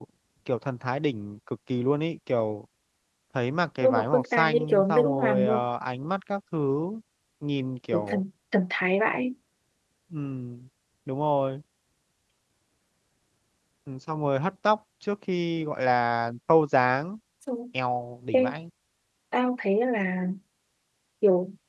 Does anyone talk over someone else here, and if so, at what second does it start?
4 s

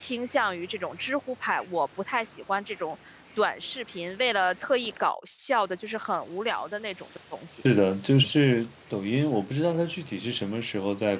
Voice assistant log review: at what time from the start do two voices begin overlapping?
none

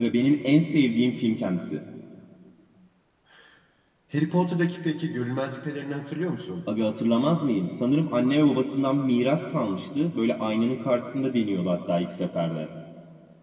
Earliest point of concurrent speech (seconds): none

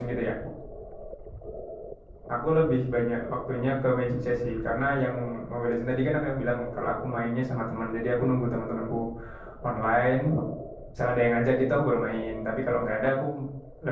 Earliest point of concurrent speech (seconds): none

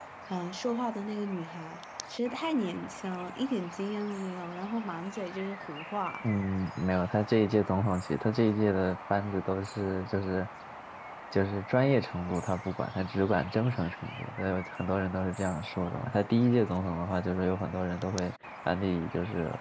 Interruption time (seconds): none

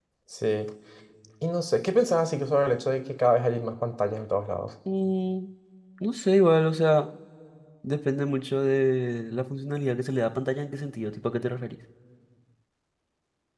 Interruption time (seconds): none

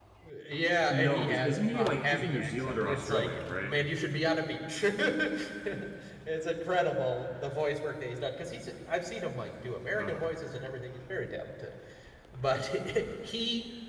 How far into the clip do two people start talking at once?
1 s

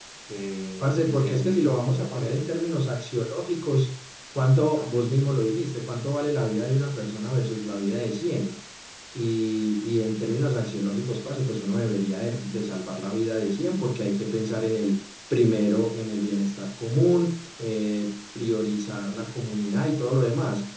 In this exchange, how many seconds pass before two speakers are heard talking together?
1 s

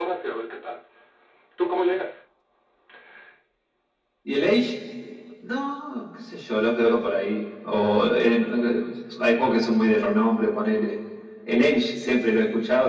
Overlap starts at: none

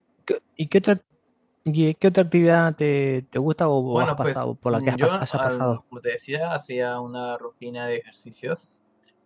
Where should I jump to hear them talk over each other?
4 s

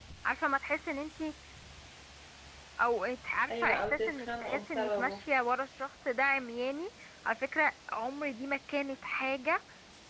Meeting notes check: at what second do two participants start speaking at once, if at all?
4 s

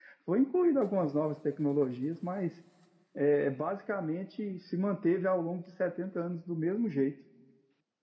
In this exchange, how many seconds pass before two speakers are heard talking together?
none

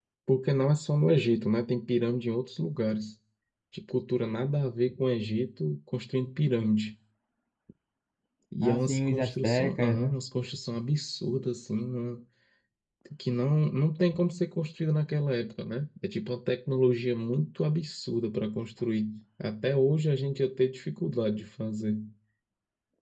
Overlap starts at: 9 s

